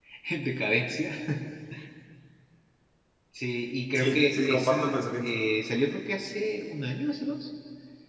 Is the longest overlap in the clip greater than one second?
Yes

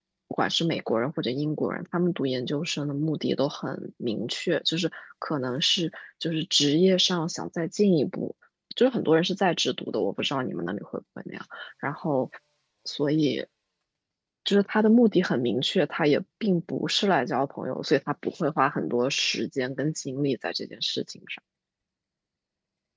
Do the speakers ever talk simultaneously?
No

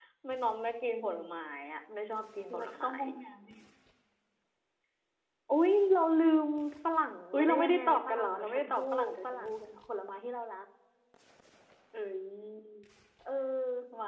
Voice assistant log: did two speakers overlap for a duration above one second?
Yes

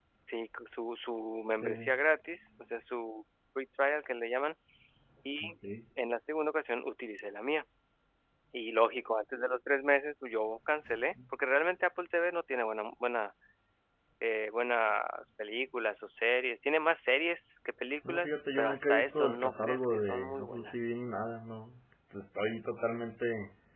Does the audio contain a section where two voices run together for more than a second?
Yes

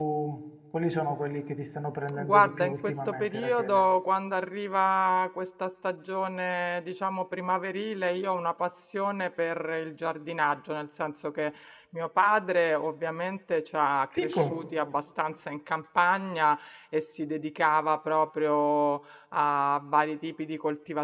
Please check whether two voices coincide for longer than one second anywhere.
Yes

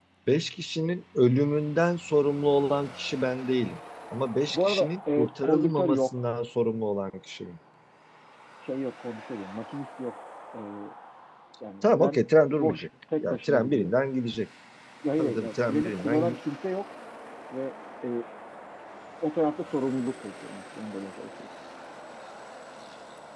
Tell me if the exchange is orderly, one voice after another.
No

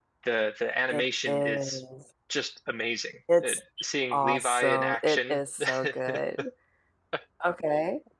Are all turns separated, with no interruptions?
No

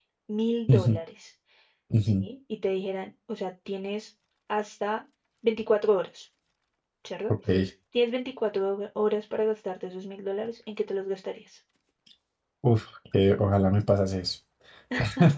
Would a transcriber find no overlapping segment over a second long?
Yes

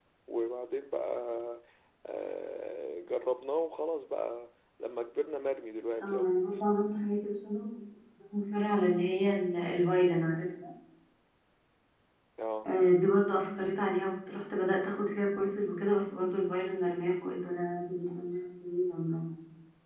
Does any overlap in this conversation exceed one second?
No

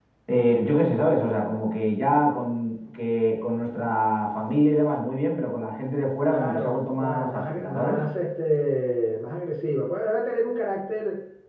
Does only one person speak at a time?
No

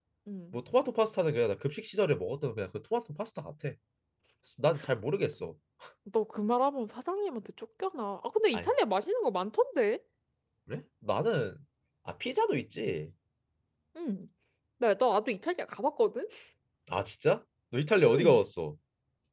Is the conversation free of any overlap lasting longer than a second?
Yes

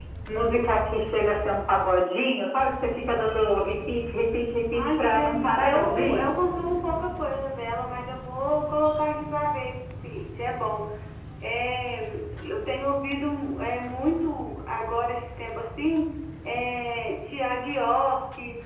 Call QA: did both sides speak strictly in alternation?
No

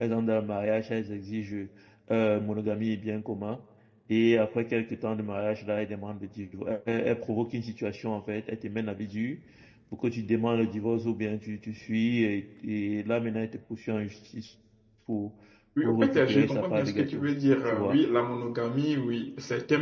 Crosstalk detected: Yes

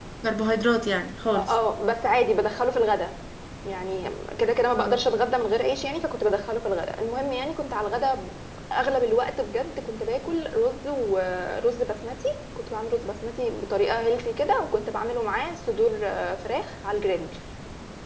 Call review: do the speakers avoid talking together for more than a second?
Yes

